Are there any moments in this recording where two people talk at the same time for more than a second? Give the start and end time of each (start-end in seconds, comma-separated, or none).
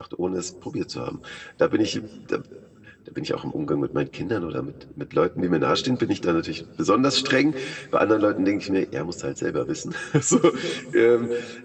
none